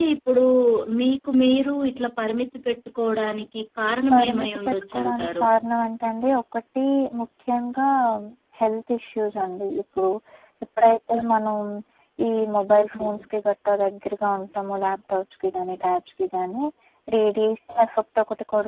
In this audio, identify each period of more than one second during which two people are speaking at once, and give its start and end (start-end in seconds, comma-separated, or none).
4.1-5.5